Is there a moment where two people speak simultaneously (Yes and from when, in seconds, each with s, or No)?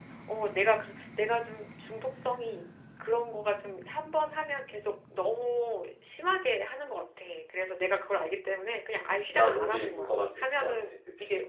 Yes, from 9.3 s